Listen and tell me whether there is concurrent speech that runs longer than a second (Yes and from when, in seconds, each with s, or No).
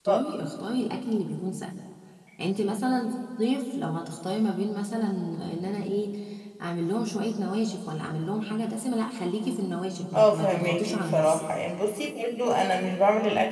Yes, from 10.1 s